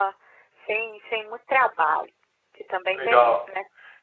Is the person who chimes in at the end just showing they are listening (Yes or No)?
No